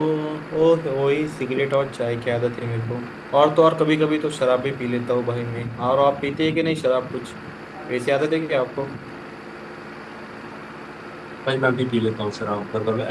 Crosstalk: none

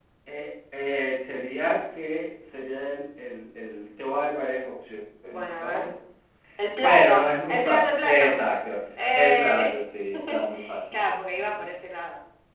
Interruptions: present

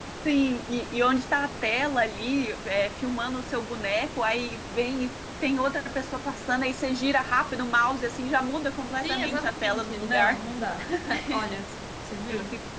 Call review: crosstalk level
present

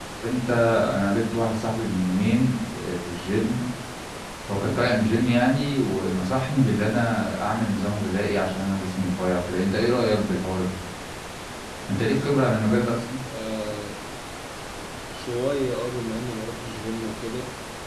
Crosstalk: none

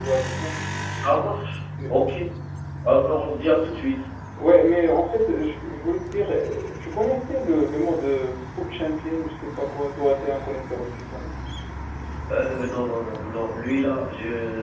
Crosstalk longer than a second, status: none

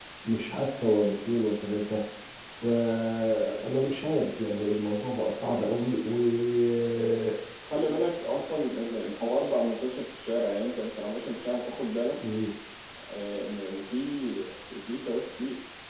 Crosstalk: none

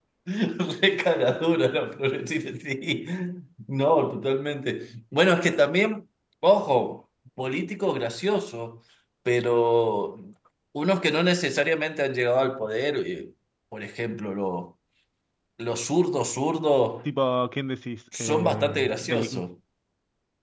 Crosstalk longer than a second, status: present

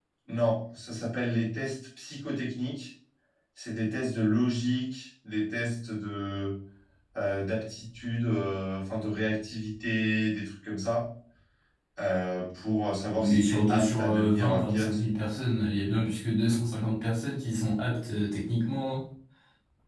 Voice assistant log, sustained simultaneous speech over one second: present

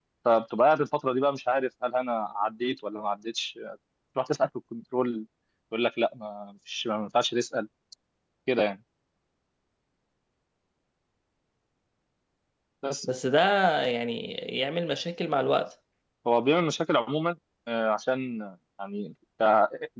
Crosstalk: none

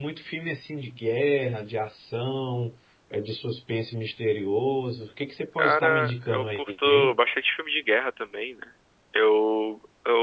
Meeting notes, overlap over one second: present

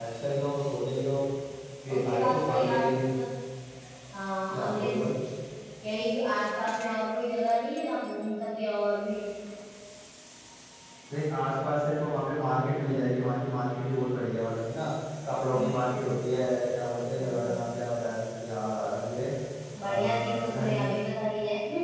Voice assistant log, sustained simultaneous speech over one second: present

